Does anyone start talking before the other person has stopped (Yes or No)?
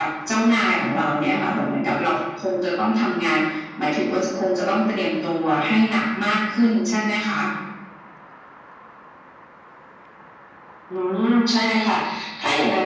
No